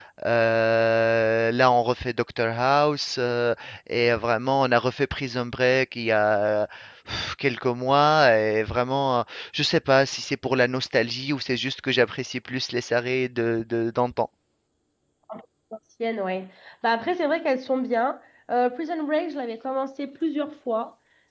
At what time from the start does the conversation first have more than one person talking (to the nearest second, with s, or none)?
none